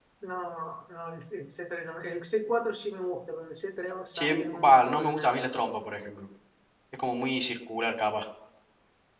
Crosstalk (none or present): present